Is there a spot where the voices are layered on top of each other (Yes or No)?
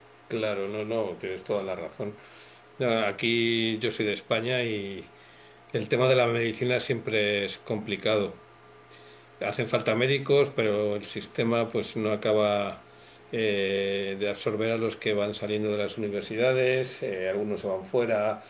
No